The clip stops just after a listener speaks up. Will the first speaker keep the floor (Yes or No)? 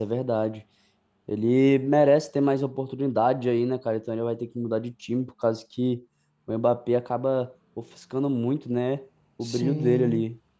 No